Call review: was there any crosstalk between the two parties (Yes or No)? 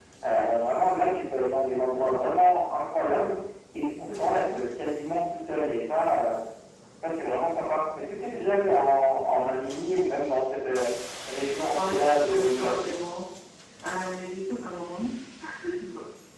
Yes